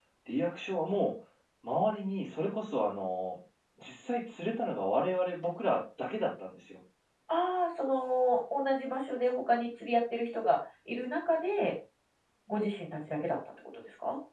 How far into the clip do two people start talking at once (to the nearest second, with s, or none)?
none